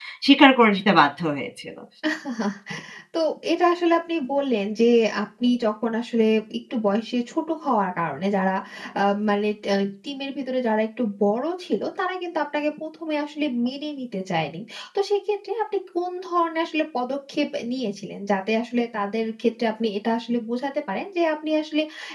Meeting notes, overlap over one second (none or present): none